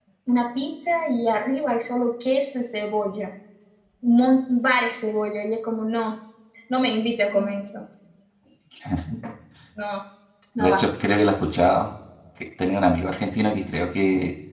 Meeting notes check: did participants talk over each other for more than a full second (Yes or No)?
No